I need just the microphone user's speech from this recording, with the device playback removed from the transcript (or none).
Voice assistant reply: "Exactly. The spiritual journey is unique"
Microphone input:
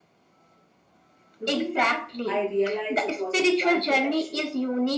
Looking back, I realize it was a divine protection,